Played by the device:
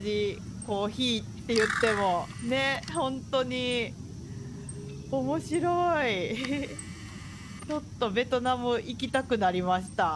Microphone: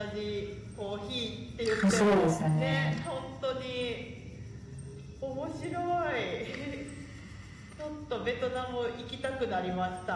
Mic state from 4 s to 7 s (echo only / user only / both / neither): echo only